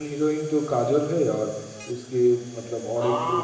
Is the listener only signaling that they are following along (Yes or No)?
No